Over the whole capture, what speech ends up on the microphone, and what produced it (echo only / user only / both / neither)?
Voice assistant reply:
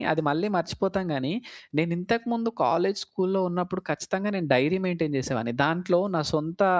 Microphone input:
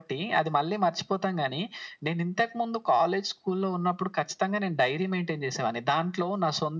echo only